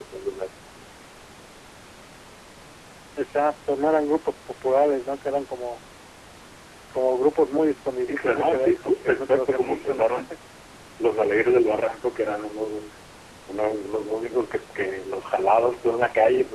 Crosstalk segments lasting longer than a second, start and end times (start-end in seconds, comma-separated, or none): 8.1-10.0